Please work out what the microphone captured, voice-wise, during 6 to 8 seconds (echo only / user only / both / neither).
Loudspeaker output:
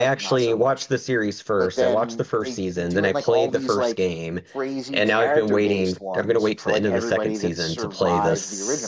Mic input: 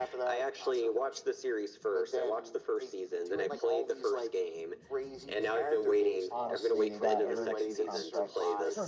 both